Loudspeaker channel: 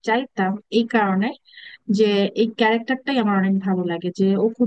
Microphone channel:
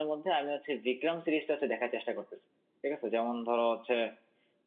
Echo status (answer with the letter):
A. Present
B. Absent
B